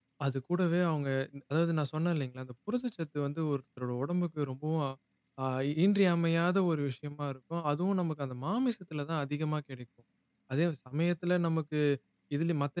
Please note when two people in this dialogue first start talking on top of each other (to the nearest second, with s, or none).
none